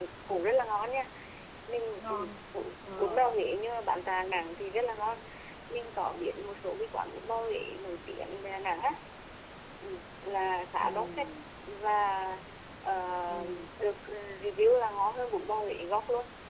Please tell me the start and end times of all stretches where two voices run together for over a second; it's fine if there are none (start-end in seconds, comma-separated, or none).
none